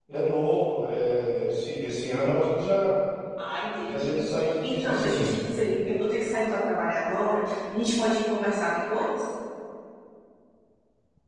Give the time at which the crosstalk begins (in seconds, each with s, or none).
3.8 s